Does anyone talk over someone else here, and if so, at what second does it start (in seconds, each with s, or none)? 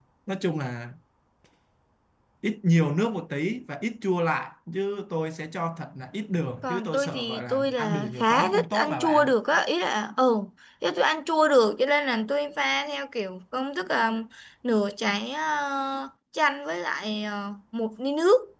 6.6 s